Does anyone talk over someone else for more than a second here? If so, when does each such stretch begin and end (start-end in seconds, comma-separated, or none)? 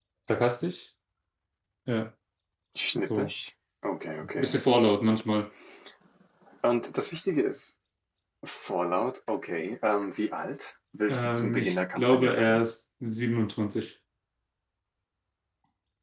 11.1-12.6